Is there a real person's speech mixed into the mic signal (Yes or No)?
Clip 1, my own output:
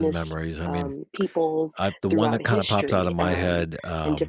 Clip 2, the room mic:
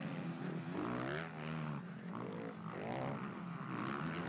No